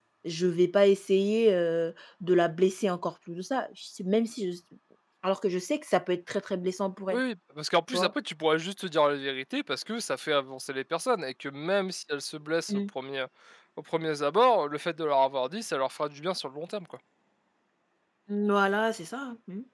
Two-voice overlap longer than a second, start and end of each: none

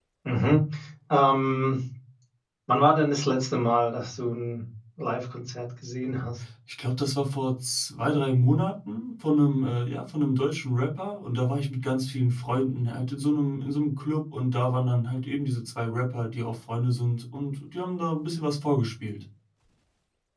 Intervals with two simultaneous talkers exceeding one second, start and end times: none

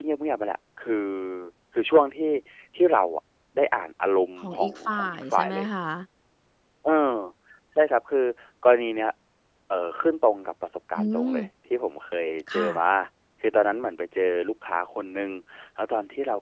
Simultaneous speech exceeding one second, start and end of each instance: 4.5-5.7

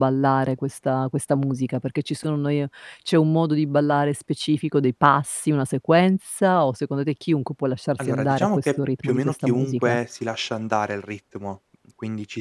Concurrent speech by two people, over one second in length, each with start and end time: 8.0-10.0

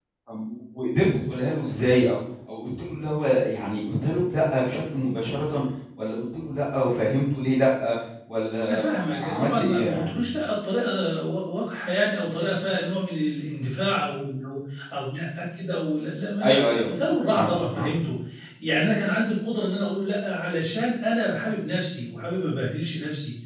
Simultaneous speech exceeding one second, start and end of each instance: 8.7-10.2

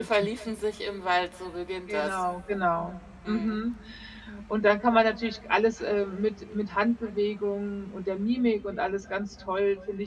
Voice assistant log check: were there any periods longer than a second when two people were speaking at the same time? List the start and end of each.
none

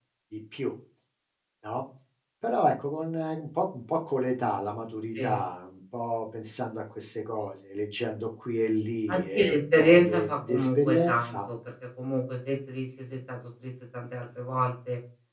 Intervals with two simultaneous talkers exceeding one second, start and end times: 9.1-11.4

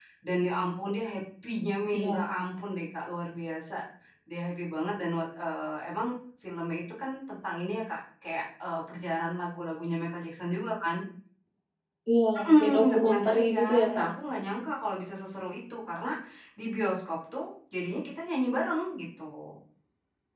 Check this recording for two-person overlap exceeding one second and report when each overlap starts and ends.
12.4-14.1

